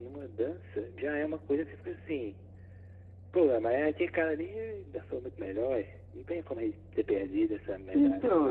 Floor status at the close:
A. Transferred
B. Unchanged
A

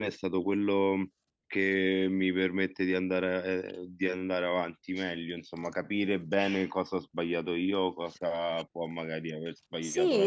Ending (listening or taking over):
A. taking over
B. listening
A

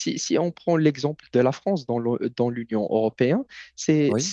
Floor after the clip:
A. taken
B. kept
B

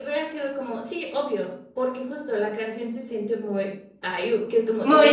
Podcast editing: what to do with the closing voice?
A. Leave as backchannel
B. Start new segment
A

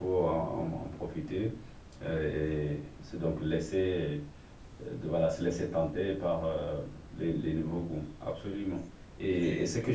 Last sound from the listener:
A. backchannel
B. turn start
A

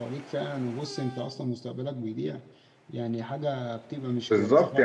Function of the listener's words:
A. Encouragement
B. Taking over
B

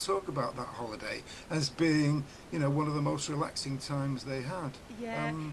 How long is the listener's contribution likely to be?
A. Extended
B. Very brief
A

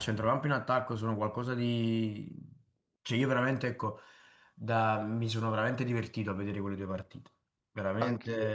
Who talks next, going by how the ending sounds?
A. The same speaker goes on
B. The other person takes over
B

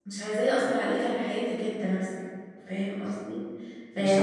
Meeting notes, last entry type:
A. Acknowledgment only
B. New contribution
A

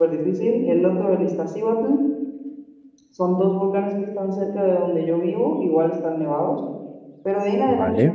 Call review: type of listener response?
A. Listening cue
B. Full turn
A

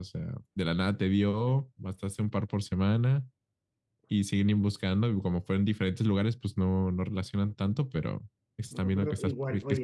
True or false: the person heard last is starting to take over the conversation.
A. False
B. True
B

